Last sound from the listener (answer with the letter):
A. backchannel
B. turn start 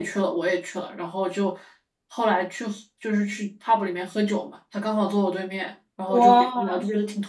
A